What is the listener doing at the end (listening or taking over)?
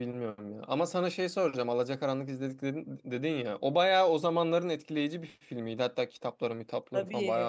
listening